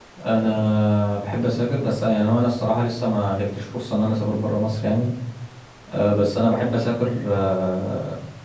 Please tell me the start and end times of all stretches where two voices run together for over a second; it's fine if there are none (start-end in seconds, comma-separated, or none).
none